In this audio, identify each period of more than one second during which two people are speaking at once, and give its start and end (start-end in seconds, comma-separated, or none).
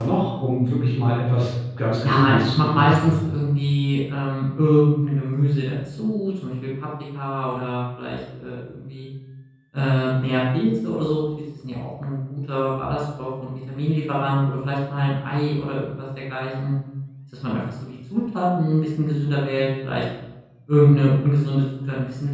2.0-3.3